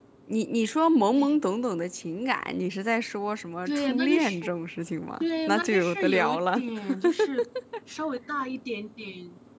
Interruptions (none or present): present